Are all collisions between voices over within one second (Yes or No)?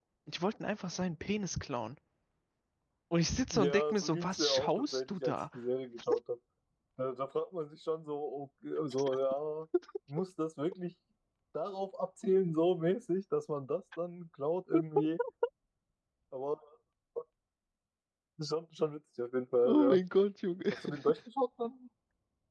No